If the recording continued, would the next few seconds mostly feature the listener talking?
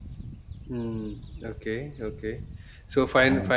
No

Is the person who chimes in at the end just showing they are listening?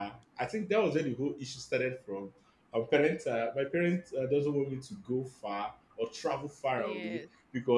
Yes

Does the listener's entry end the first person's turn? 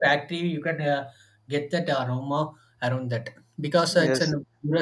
Yes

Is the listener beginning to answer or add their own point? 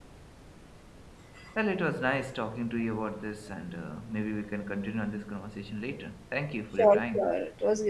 Yes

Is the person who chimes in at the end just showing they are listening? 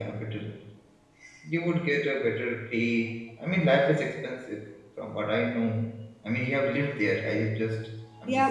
No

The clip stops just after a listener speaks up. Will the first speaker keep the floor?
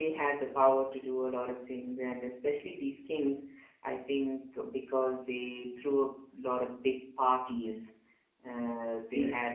Yes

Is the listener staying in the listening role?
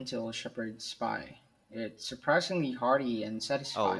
No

